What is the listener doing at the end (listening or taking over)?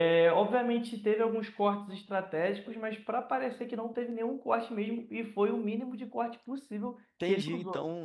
taking over